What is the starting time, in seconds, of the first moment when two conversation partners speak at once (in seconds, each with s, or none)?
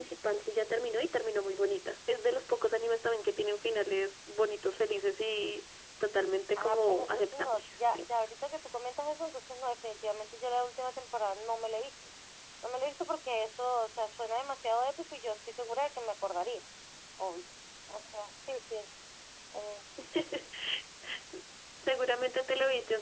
6.6 s